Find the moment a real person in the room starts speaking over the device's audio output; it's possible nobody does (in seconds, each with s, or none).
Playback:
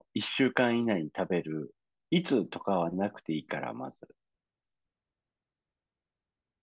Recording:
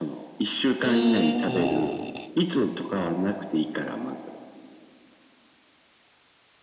0.8 s